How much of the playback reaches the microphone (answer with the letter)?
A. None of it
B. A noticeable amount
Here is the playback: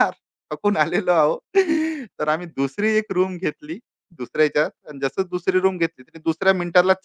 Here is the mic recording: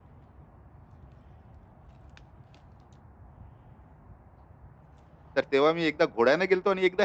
A